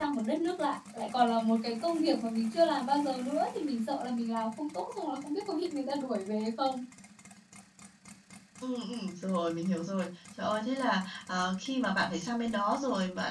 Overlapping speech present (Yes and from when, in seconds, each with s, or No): No